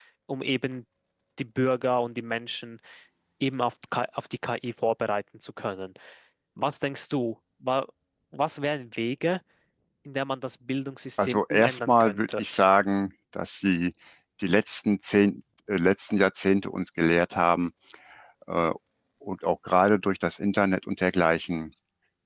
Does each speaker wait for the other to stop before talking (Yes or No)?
No